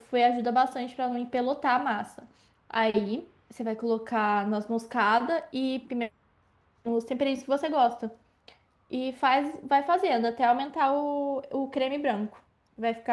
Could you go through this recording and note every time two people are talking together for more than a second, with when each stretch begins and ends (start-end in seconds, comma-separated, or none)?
none